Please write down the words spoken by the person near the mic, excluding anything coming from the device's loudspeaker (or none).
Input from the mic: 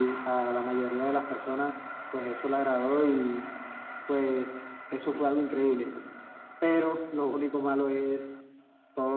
none